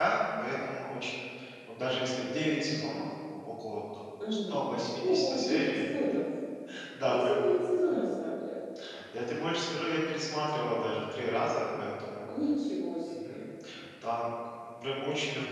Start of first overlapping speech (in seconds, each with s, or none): 4.3 s